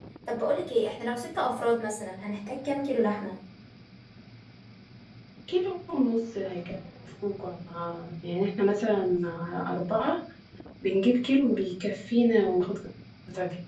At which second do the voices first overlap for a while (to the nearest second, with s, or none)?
none